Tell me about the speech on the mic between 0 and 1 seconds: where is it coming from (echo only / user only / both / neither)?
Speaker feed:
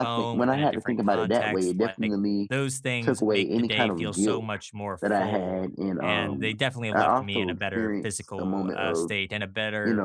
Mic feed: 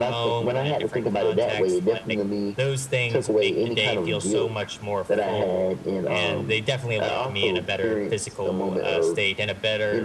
echo only